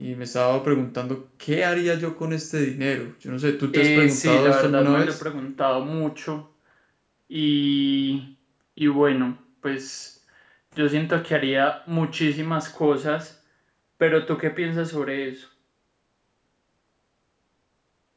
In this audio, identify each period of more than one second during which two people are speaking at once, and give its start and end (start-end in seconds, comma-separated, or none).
3.7-5.2